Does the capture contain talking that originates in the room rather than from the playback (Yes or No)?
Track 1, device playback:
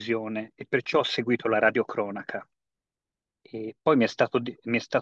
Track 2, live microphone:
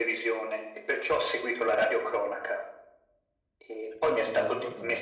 Yes